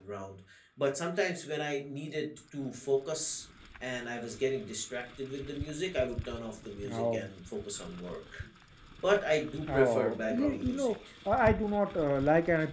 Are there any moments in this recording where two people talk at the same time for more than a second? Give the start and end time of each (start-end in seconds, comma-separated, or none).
9.7-10.9